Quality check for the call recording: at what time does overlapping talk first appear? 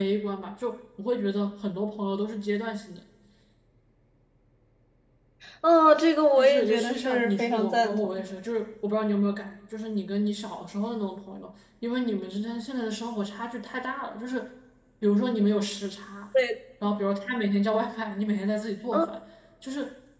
6.4 s

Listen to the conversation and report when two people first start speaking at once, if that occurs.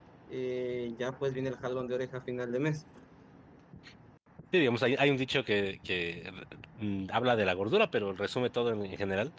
none

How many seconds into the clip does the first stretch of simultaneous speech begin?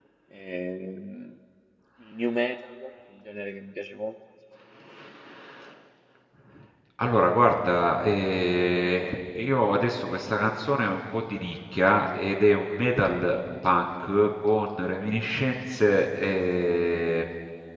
none

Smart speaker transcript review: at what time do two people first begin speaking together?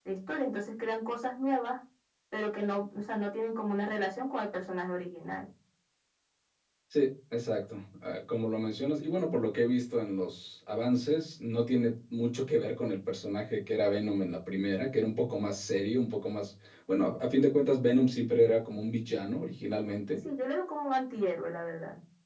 none

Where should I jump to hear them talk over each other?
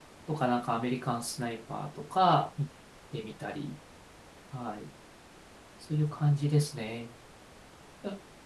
none

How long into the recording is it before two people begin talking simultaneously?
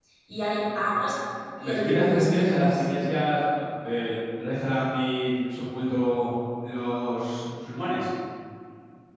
1.6 s

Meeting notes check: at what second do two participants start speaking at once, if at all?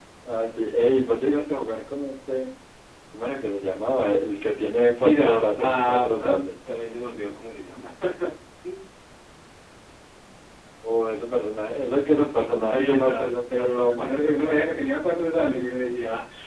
4.9 s

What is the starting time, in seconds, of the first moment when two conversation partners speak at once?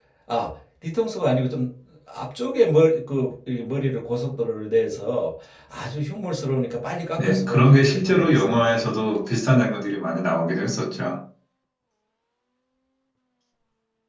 7.2 s

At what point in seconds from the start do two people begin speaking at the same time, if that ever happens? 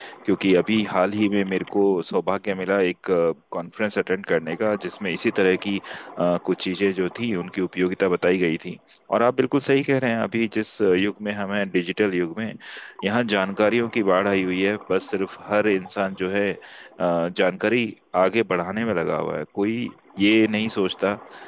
none

